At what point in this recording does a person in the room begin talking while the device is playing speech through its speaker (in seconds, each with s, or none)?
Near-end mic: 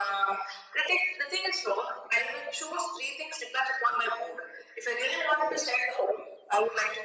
none